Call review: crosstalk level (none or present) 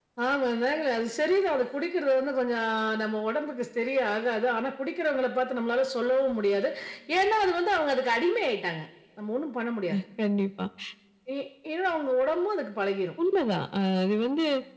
none